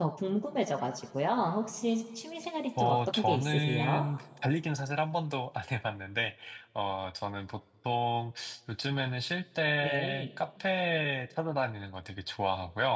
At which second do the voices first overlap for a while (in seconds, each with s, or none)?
2.8 s